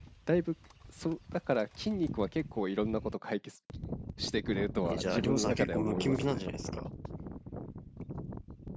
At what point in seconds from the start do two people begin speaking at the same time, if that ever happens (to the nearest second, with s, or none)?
5 s